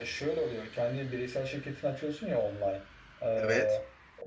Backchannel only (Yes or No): Yes